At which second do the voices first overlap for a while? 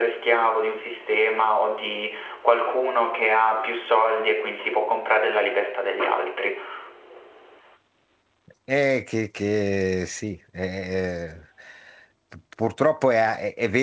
none

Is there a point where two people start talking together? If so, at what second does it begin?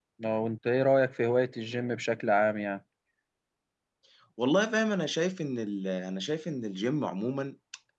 none

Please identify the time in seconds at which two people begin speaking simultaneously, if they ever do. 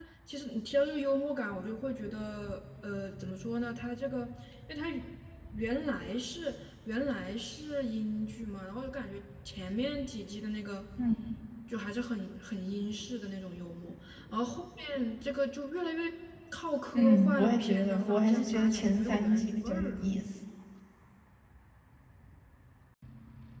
16.9 s

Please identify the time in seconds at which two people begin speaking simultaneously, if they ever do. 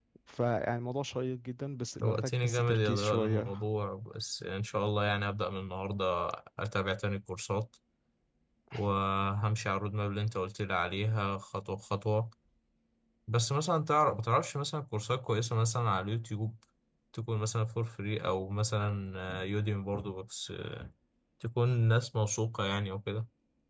2.0 s

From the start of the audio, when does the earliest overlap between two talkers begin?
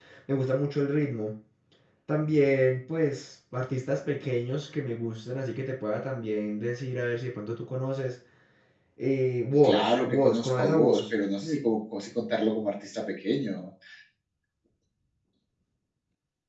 9.6 s

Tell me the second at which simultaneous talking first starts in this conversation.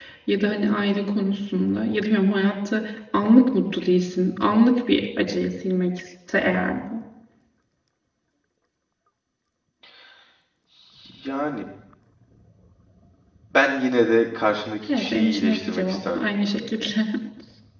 14.9 s

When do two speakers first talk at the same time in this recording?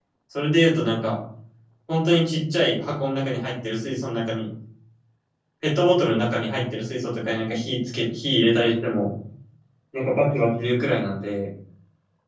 none

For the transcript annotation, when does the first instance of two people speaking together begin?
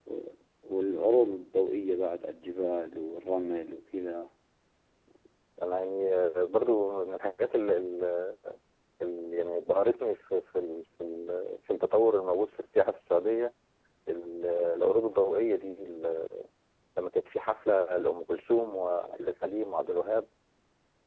none

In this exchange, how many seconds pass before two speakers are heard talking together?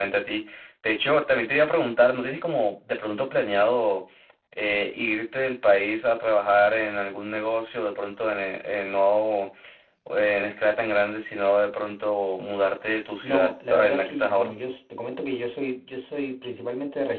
13.2 s

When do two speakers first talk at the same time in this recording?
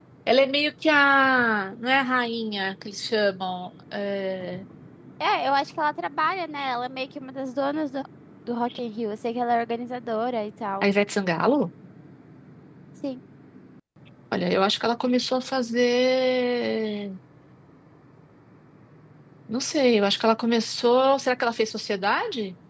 none

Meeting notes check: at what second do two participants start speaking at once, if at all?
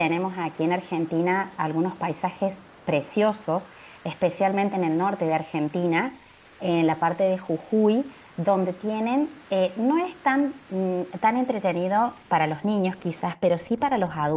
none

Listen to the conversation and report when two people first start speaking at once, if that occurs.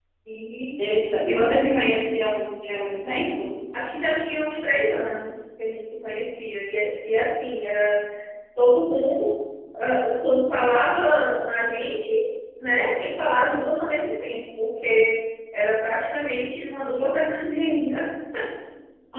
none

